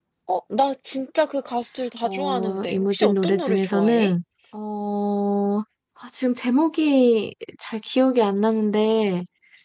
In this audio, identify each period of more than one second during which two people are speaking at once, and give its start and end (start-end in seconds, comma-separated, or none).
2.0-4.1